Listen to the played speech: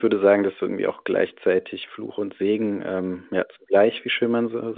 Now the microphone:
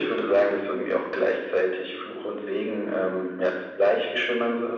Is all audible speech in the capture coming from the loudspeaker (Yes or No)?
Yes